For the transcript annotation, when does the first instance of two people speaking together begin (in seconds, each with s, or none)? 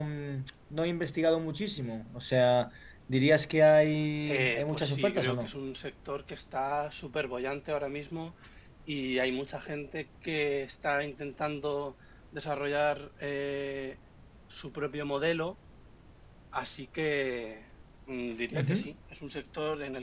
4.2 s